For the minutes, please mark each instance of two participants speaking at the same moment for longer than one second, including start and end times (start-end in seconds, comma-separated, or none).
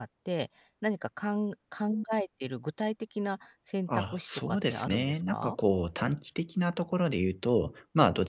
3.9-5.6